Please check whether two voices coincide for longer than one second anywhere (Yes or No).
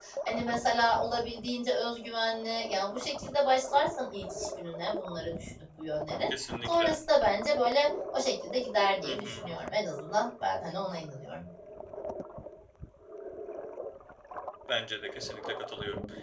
No